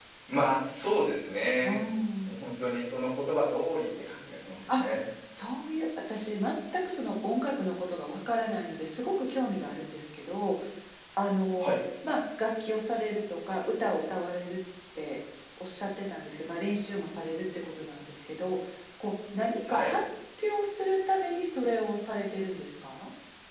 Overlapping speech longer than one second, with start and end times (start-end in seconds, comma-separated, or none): none